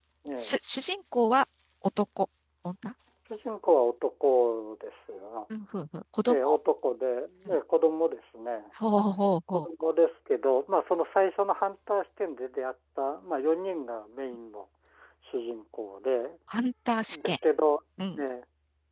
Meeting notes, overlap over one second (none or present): none